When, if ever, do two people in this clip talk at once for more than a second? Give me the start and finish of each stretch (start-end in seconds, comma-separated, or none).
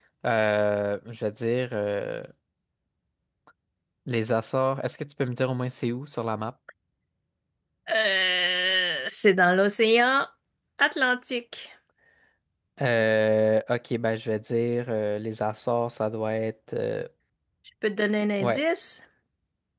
none